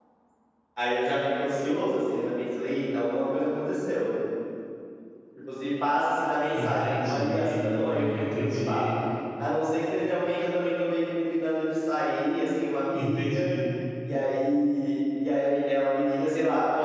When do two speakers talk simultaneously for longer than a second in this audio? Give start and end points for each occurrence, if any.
6.5-8.9

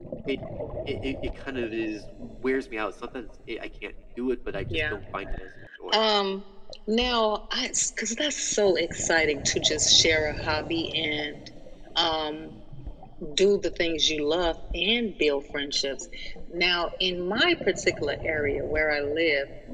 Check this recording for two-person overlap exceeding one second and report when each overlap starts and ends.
none

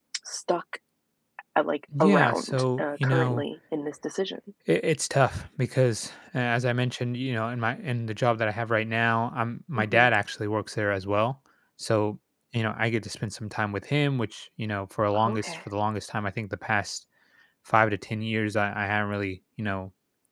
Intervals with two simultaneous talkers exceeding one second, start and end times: 2.0-3.4

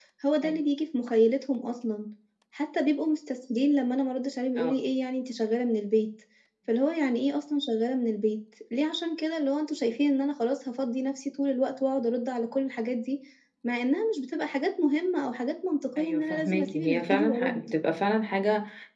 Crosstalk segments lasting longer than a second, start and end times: 16.0-17.6

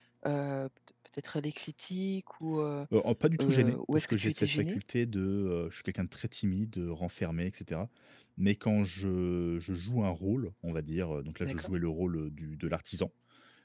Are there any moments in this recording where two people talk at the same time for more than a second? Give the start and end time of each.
3.4-4.8

